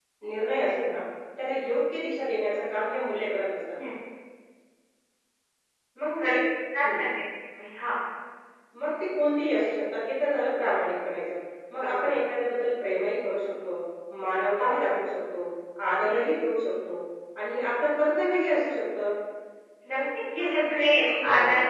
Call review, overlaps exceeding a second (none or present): present